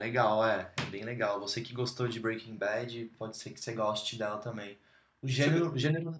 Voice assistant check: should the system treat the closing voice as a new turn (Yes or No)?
No